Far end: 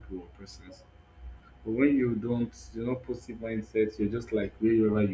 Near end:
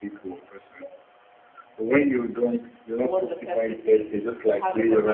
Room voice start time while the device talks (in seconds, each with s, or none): 3.0 s